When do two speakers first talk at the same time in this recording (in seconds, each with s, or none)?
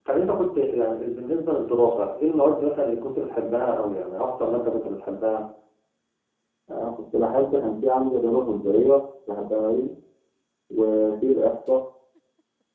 none